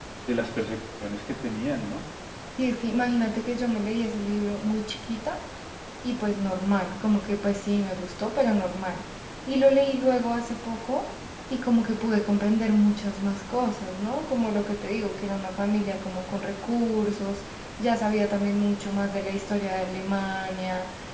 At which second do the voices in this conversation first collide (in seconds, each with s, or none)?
none